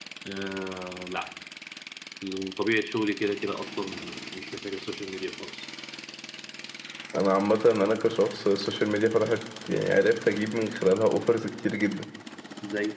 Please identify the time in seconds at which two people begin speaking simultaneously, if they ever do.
none

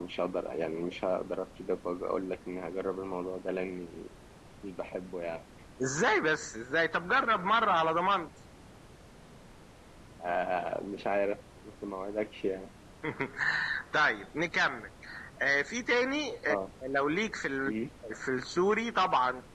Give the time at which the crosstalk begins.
none

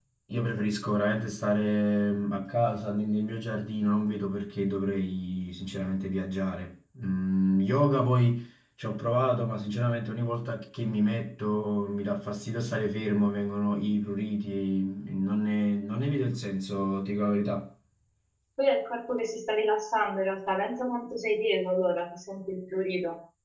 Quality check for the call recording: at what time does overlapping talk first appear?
none

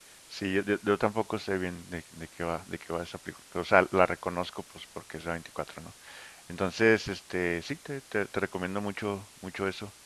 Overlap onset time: none

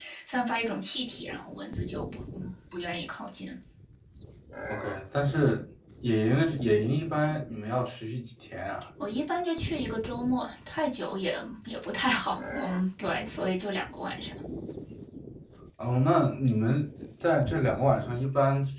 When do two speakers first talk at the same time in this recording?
none

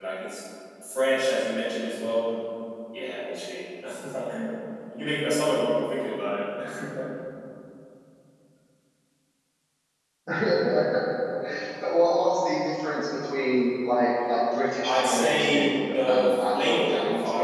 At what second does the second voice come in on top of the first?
14.8 s

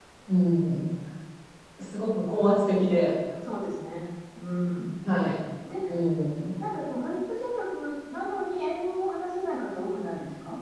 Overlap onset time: none

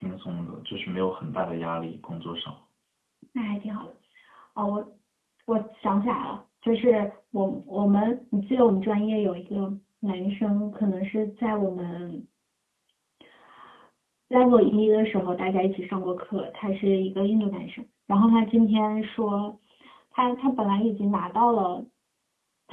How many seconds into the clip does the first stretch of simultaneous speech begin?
none

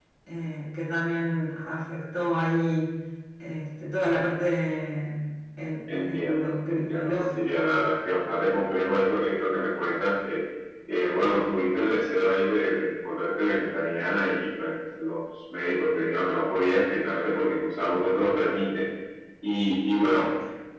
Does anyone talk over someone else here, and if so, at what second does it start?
5.9 s

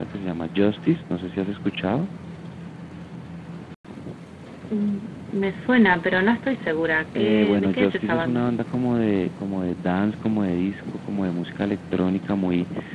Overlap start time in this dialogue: 7.2 s

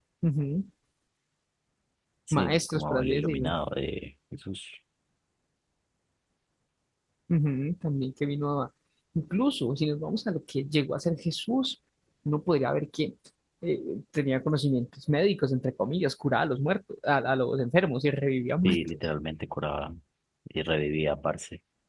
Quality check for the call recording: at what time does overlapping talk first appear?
2.3 s

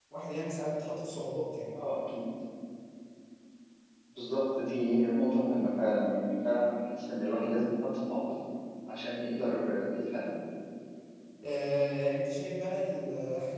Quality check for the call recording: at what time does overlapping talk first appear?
none

